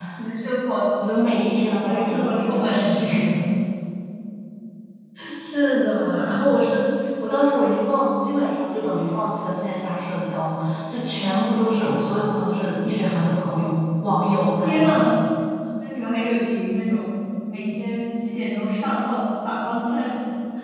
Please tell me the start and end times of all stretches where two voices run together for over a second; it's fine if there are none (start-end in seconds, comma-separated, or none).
1.8-3.1